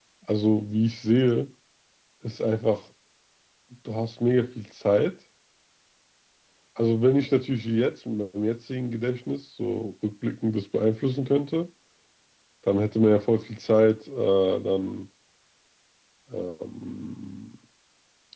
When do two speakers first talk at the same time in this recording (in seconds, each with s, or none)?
none